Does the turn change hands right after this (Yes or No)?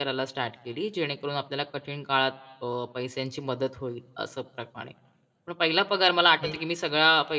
No